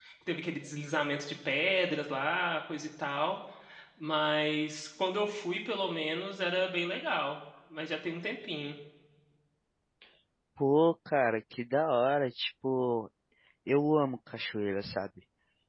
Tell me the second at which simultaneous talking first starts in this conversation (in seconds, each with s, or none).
none